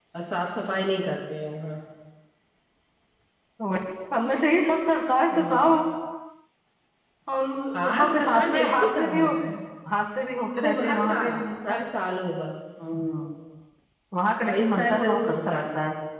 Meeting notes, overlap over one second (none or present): present